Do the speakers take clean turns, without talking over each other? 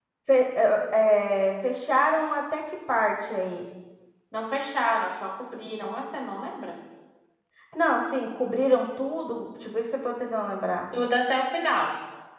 Yes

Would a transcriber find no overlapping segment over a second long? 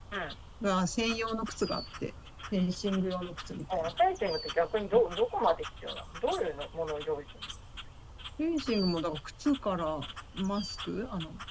Yes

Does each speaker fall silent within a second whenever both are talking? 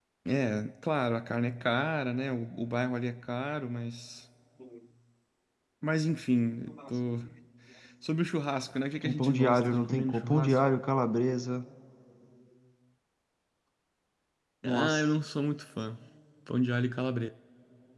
No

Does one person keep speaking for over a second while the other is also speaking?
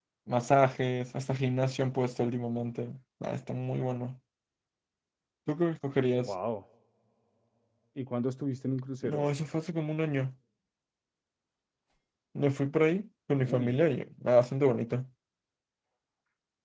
No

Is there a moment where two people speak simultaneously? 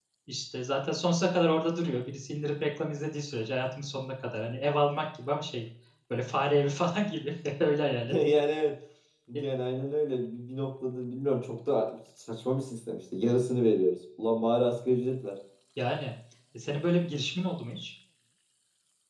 No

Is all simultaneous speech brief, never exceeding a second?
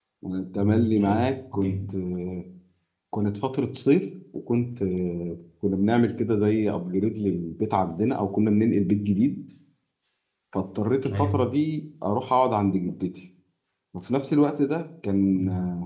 No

